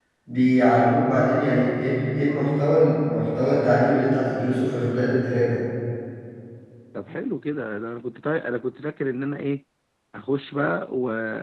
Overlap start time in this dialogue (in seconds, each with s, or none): none